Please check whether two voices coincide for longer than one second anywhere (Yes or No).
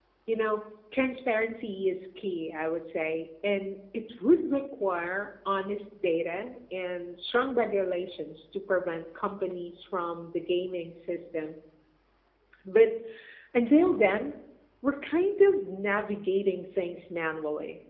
No